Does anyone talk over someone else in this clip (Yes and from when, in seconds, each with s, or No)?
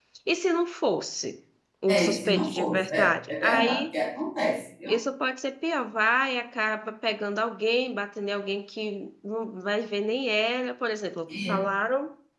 Yes, from 1.9 s